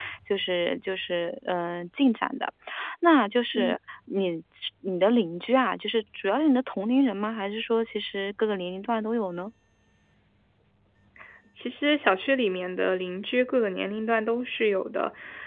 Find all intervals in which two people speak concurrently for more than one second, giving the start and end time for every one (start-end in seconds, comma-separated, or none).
none